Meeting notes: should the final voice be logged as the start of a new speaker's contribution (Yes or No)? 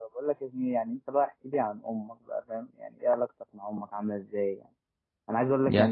No